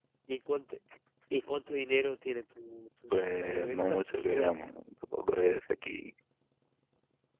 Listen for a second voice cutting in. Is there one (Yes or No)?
Yes